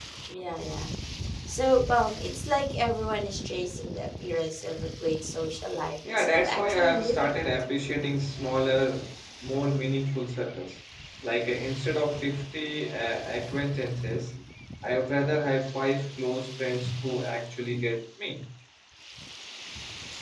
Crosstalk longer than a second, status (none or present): present